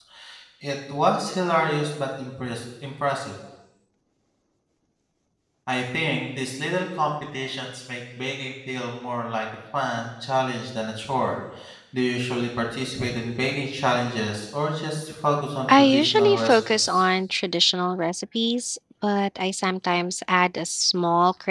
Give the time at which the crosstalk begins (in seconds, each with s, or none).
15.7 s